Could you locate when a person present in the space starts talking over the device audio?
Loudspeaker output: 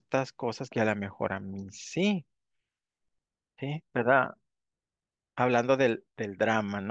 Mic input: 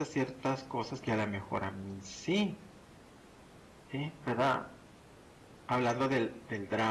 none

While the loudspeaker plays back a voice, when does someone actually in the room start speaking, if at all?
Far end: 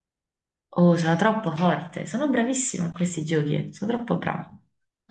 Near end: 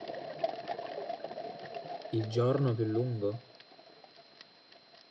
2.1 s

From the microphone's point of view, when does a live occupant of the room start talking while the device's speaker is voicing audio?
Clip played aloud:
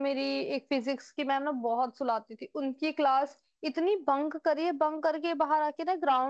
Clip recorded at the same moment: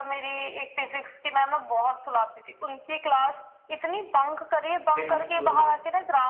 4.9 s

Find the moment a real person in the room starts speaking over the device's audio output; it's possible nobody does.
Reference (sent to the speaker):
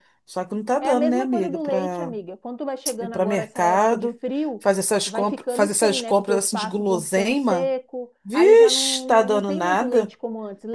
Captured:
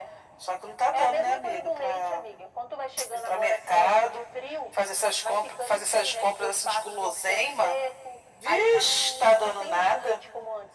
none

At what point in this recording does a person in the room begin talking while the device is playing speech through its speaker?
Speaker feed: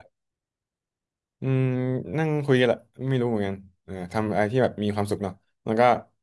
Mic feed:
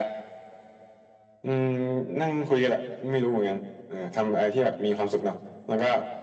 none

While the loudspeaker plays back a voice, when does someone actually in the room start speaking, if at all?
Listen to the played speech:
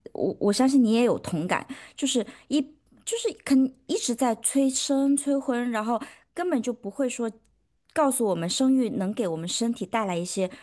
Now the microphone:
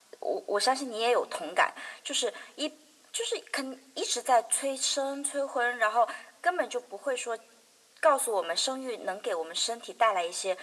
none

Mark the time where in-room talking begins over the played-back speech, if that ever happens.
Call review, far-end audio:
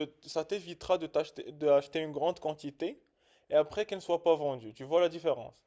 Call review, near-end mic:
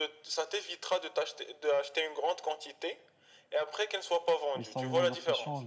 4.5 s

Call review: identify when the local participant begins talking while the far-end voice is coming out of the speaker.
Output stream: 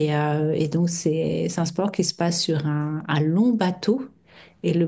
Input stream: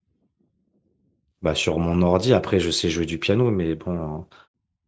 1.4 s

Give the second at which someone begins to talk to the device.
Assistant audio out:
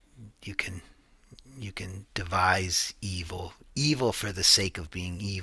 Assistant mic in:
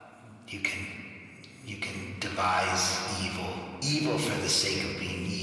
none

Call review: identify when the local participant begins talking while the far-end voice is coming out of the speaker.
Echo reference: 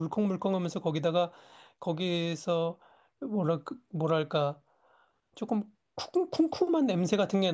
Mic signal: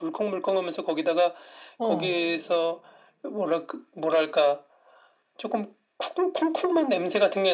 1.8 s

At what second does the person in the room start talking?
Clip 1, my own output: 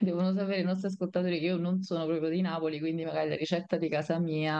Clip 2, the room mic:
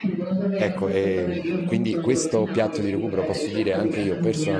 0.5 s

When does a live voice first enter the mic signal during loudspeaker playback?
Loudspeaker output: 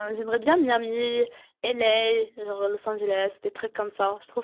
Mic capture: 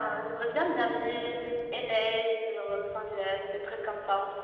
none

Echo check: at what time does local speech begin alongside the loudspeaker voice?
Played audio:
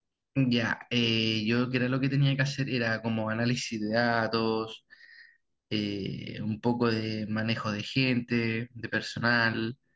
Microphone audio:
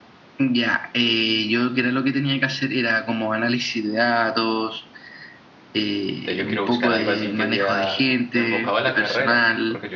6.2 s

